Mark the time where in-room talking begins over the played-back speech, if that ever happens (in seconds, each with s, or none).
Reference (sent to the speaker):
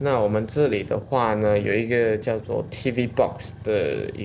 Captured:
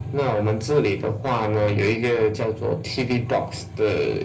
none